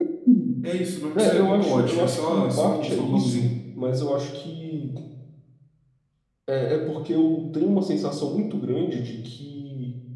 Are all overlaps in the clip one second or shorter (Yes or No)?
No